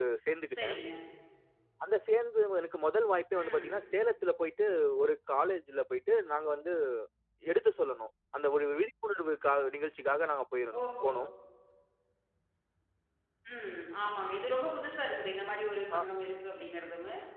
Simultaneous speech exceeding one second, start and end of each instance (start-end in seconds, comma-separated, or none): none